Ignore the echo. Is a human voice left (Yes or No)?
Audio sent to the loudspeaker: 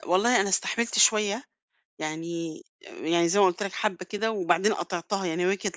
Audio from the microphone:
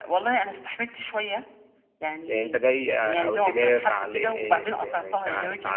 Yes